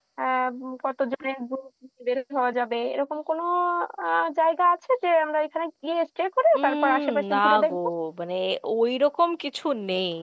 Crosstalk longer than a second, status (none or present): present